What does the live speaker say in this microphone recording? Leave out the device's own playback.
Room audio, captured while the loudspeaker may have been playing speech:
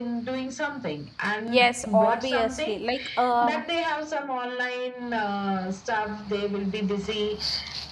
Yes, obviously. Like uh,

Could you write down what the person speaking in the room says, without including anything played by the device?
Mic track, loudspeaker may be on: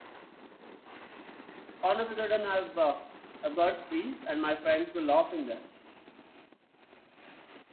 all of a sudden i've uh, i've got freezed and my friends were laughing there

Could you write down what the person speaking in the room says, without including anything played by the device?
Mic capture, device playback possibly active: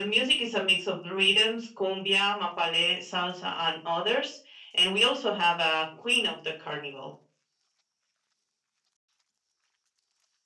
none

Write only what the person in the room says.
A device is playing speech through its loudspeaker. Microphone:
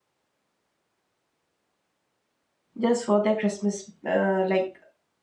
just for their Christmas uh, like

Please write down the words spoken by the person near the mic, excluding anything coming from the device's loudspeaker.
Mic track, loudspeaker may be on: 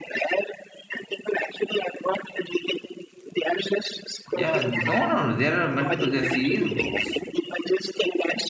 yeah, no, no, no. There are multiple. There are series of books.

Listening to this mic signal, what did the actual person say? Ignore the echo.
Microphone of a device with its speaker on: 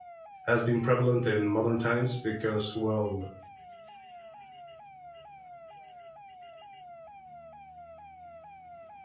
has been prevalent in modern times because well,

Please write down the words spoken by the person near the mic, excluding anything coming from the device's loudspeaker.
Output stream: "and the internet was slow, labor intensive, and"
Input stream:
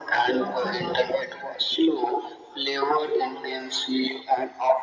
of the past,

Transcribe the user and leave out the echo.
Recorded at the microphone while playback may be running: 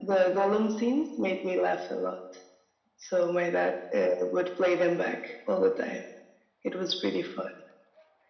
none

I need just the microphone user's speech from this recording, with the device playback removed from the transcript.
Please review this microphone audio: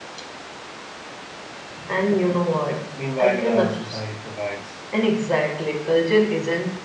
Meanwhile, uh, society provides

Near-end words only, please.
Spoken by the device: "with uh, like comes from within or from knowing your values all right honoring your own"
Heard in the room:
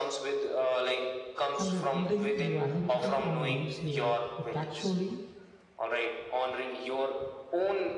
and by building your identity on leaves you perpetually

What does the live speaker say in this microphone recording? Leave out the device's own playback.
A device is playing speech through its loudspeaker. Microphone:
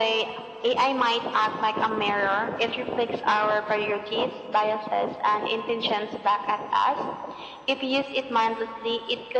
none

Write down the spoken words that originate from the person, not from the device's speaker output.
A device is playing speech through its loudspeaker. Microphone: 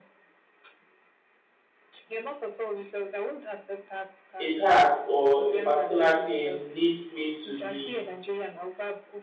a task or a particular thing needs me to be

